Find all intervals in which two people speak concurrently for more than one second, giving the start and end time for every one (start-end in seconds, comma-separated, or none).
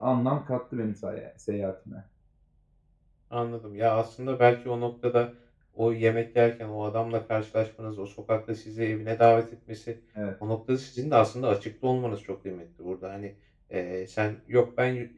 none